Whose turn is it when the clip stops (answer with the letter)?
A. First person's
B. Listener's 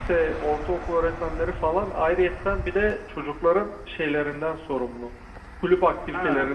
A